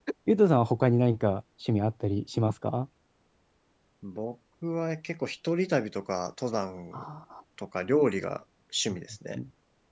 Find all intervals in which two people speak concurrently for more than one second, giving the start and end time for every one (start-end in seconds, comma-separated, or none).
none